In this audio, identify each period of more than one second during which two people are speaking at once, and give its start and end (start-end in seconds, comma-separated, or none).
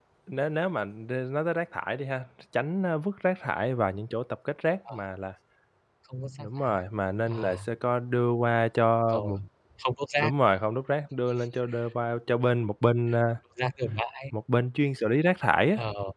none